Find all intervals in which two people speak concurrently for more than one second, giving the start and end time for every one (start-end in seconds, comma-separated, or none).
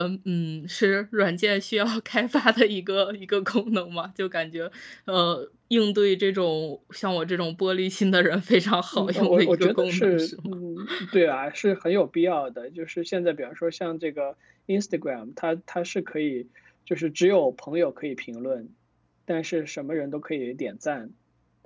8.9-10.5